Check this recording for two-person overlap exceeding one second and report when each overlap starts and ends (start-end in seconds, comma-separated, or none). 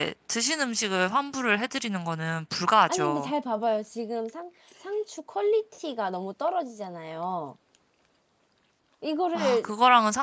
none